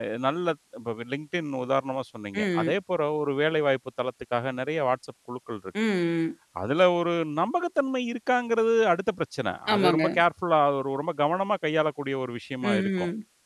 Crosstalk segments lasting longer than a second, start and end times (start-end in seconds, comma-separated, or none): none